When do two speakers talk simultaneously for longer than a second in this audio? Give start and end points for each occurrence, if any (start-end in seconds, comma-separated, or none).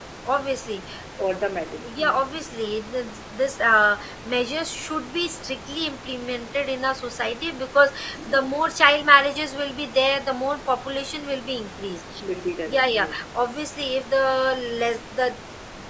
none